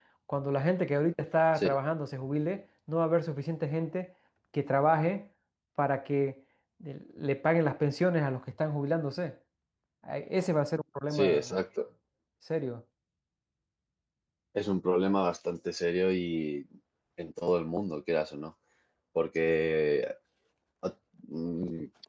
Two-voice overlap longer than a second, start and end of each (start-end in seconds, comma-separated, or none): none